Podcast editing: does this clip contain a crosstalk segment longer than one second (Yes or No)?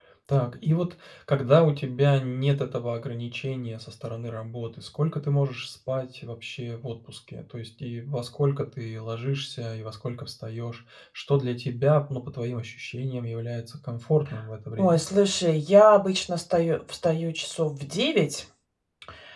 No